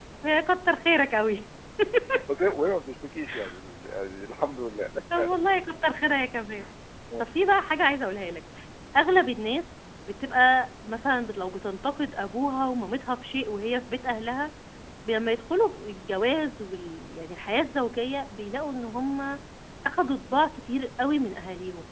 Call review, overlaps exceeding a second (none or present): none